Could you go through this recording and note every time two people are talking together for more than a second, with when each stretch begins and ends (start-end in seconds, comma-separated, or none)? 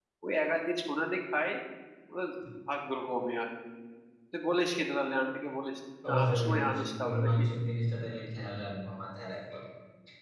6.1-7.4